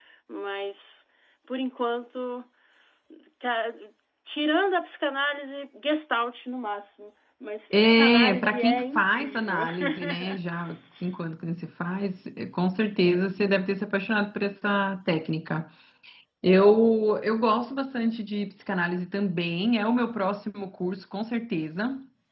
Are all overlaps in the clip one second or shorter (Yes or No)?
No